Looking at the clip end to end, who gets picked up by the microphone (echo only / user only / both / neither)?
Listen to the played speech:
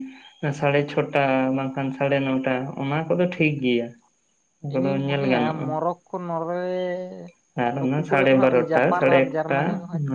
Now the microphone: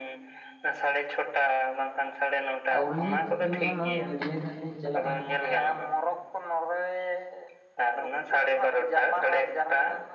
both